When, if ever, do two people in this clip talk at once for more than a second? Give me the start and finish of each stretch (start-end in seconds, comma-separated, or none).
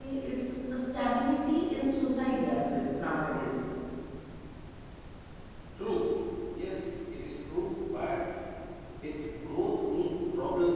none